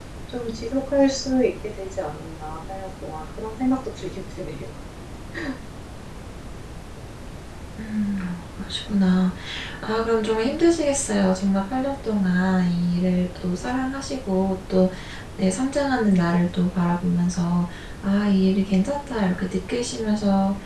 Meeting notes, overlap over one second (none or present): none